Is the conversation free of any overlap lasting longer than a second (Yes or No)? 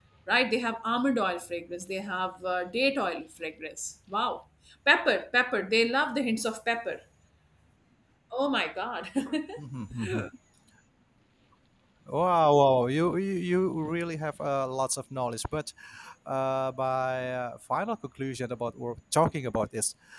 Yes